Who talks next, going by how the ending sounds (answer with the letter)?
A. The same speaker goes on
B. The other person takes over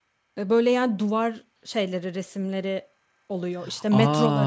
B